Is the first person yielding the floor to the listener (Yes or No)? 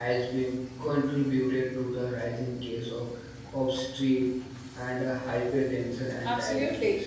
Yes